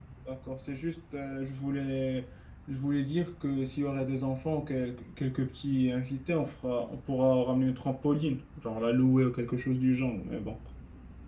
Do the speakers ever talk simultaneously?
No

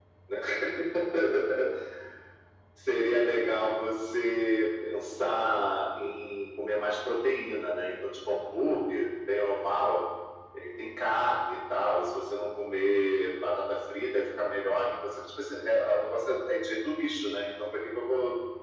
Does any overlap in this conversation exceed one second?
No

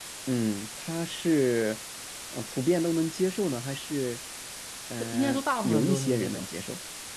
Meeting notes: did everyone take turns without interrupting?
No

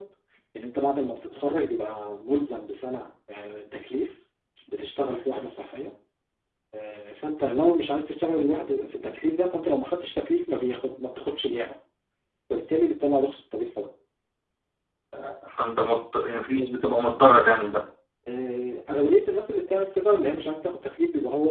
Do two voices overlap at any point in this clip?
No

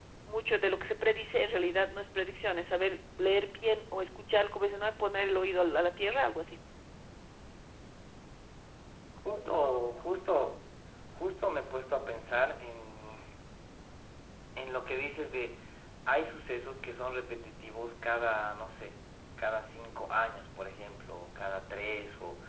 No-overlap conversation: Yes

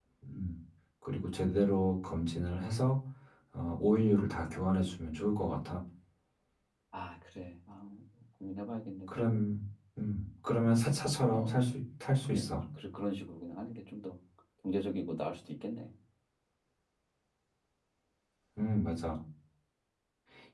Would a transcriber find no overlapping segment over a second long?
Yes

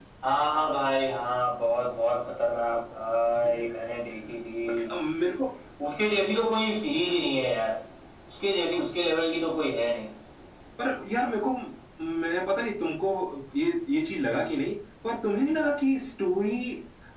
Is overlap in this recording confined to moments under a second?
Yes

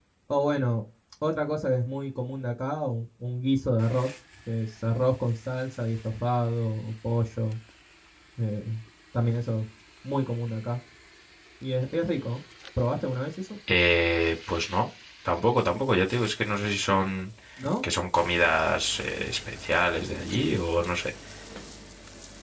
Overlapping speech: No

